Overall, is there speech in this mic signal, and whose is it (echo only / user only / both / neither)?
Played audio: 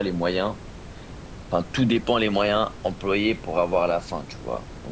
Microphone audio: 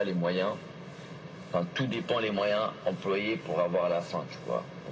echo only